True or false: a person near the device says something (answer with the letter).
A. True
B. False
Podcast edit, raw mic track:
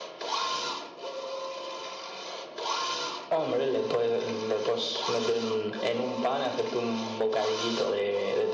B